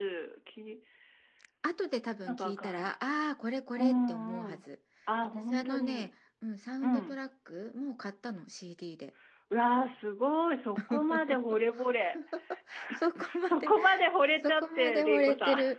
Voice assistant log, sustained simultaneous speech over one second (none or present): present